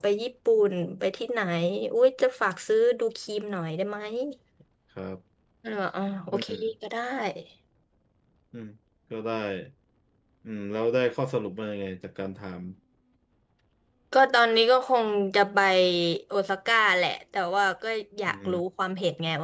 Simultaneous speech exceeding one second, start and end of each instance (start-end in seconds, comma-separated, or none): none